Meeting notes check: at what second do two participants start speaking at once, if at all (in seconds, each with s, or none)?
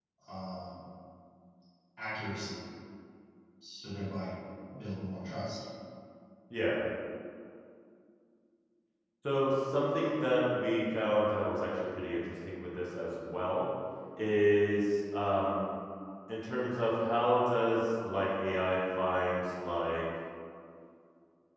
none